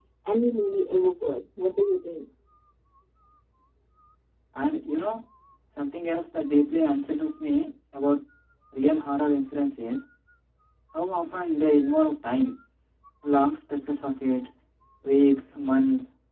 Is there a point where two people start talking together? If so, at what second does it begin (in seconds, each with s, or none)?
none